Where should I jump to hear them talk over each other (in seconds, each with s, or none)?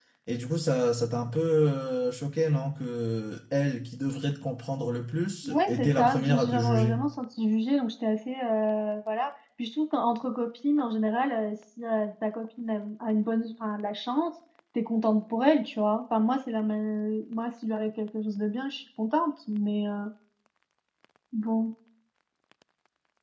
5.4 s